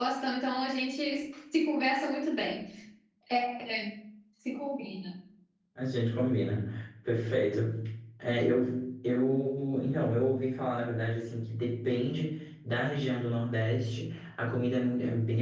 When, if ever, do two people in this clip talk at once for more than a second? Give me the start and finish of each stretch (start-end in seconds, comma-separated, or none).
none